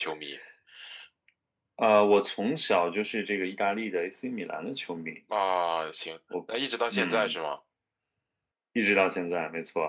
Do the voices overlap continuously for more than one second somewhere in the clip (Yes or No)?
No